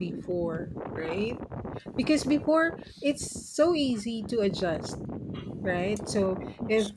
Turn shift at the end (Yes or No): No